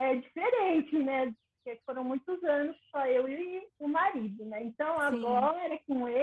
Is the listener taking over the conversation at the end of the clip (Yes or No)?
No